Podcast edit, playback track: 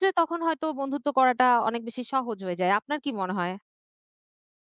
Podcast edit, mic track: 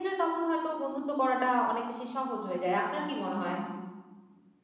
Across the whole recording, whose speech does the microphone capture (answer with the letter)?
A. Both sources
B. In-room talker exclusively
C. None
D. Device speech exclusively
D